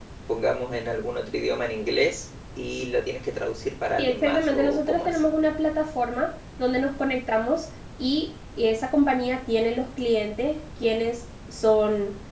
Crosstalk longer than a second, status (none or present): present